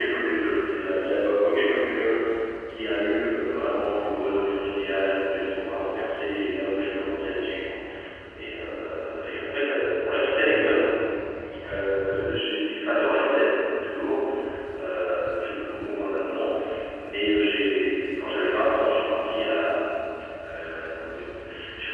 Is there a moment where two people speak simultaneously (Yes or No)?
No